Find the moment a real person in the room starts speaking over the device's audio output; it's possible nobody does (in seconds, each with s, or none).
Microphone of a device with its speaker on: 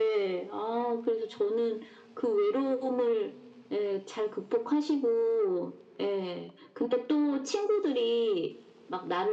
none